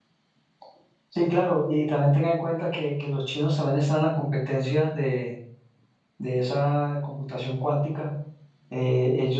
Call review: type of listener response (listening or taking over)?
listening